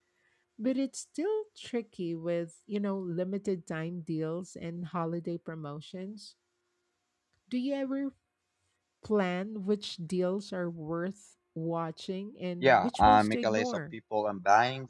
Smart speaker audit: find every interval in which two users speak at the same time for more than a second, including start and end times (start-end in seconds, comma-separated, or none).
12.6-13.9